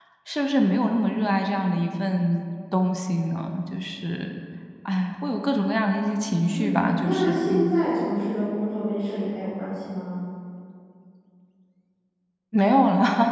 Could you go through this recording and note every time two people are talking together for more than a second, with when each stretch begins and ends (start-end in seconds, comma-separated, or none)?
6.5-7.8